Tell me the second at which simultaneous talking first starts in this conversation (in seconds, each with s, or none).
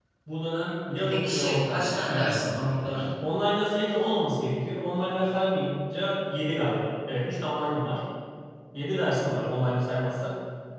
1.0 s